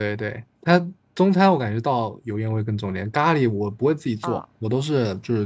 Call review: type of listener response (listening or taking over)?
listening